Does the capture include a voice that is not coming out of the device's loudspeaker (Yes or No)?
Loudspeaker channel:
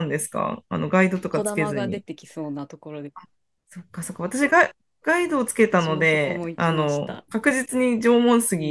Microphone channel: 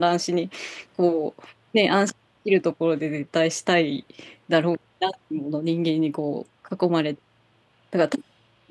Yes